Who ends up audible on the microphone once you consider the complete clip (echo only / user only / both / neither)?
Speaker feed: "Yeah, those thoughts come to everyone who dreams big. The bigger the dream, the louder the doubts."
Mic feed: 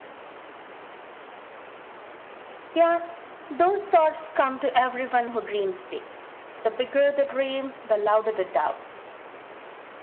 echo only